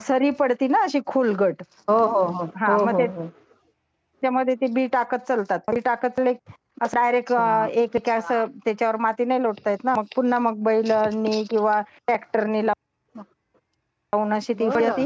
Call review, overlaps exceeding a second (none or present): none